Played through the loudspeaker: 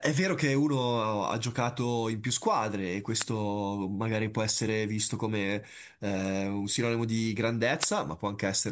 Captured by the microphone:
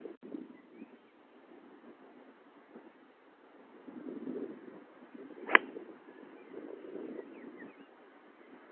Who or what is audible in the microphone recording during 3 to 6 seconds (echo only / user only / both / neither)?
neither